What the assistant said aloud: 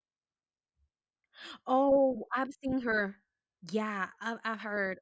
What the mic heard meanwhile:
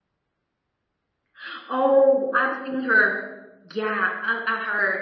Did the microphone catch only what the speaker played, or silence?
Yes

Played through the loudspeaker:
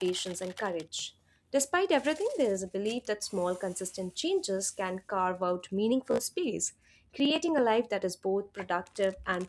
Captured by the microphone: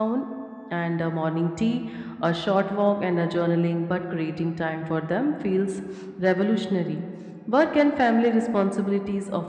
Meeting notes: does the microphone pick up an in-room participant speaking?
Yes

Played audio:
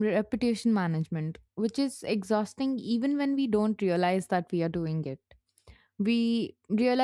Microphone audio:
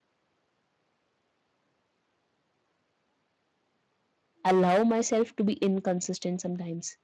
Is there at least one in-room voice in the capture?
Yes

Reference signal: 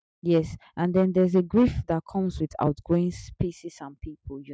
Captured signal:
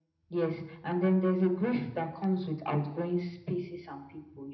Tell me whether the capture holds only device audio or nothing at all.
Yes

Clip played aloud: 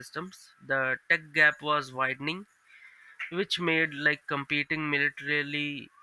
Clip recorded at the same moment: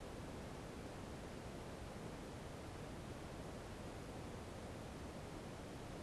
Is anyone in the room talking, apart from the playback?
No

